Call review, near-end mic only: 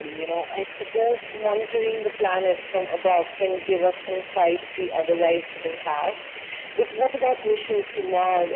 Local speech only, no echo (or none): none